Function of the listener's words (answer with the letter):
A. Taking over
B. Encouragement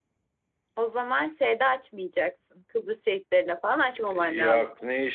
A